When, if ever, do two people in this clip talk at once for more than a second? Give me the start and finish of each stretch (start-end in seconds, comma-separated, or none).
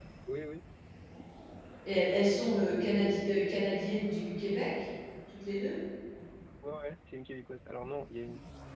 none